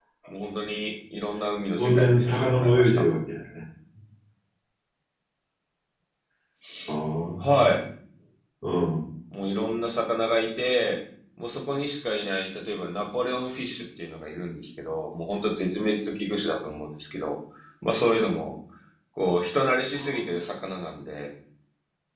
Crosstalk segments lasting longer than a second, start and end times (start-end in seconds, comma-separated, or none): 1.8-3.0